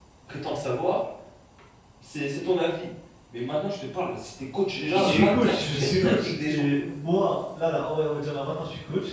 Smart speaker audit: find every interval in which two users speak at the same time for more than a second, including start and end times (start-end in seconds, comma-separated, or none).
4.9-6.6